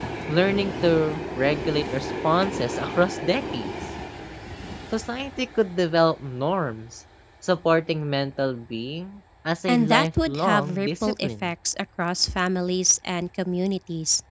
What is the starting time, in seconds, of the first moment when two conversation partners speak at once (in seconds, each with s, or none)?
9.7 s